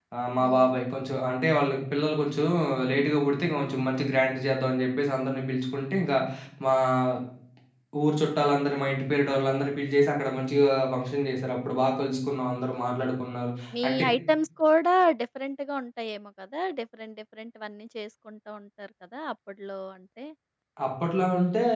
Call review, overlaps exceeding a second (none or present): none